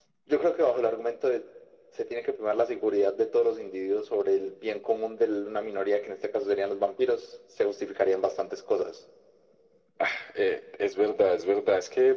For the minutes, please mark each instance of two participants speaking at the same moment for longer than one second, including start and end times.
none

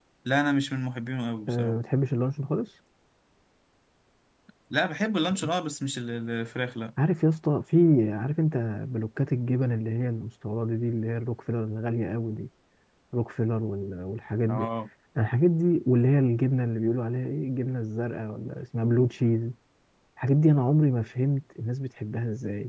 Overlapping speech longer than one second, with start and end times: none

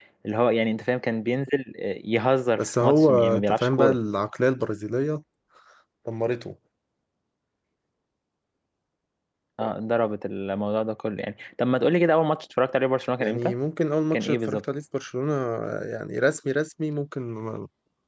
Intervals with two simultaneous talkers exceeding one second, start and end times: 2.6-4.0

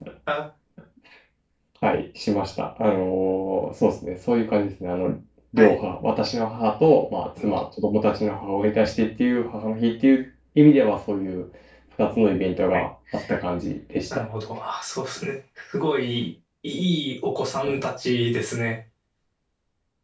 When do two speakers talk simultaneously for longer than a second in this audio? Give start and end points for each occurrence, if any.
none

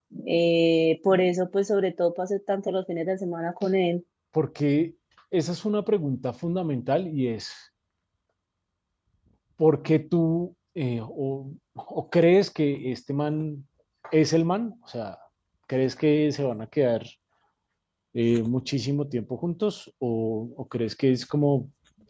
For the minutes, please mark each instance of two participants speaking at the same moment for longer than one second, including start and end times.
none

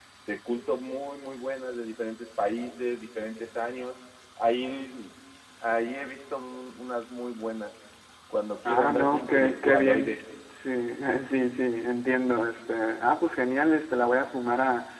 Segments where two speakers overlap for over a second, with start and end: 8.7-10.2

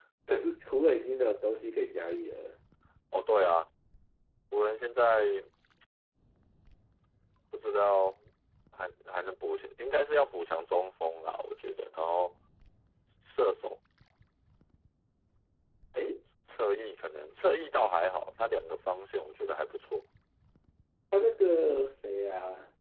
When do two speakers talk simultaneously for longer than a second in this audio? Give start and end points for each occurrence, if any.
none

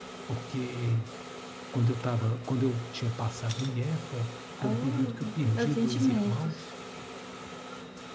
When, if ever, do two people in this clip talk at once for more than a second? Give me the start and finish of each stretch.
4.6-6.6

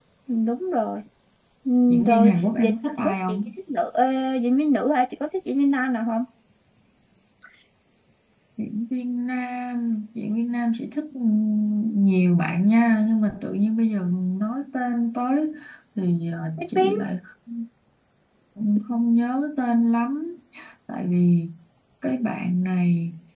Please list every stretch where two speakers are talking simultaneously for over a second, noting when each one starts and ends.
1.9-3.4

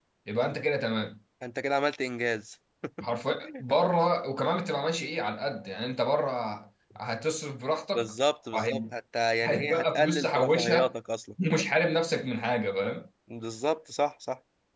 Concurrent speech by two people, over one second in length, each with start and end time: 9.4-10.9

